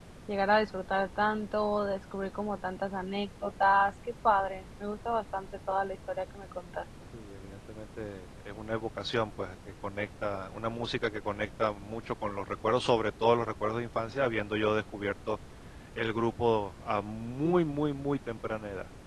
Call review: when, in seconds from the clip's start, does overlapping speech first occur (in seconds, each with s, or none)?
none